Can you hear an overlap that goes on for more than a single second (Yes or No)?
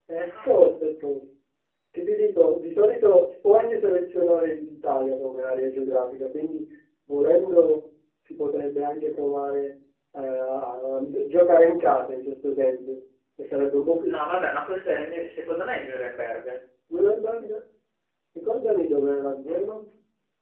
No